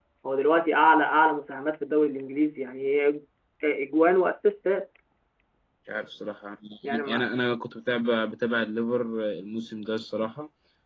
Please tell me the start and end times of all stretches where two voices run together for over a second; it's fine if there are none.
none

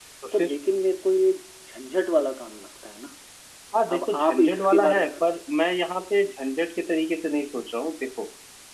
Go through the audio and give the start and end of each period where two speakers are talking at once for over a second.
3.9-5.1

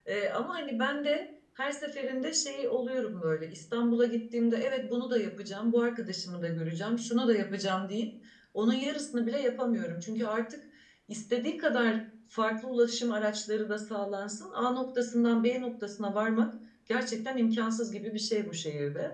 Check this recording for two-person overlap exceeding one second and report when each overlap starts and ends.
none

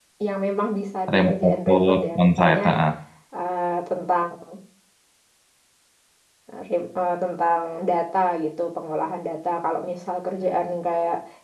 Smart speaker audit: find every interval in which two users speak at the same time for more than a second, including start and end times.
1.1-2.6

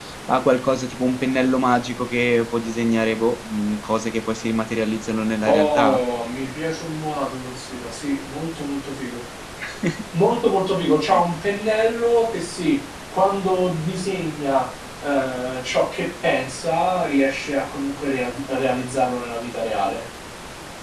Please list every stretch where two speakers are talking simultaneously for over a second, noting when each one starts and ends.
none

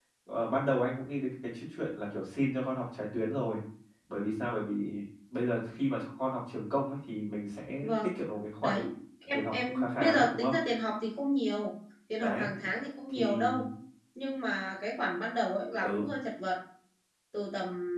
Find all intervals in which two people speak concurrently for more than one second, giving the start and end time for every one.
9.3-10.5

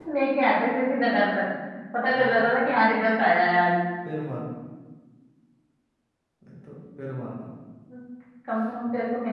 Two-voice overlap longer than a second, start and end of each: none

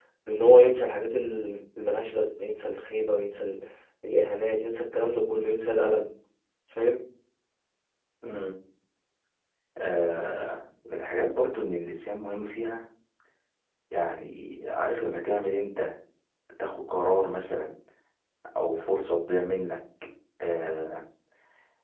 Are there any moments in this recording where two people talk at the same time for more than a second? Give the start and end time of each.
none

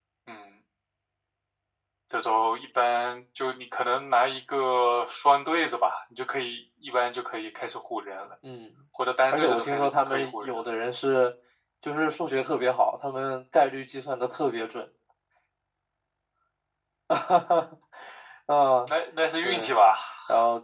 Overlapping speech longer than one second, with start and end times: 9.3-10.6

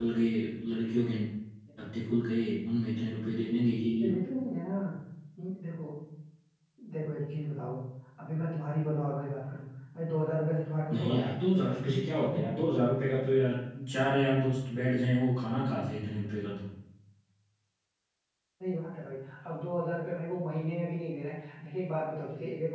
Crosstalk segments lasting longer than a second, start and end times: none

